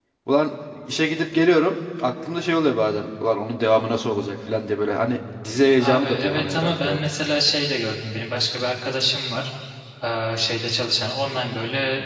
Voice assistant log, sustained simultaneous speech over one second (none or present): present